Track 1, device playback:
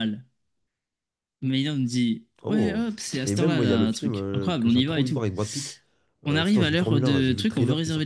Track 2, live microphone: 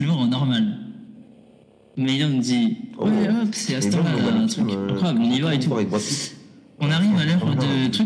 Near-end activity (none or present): none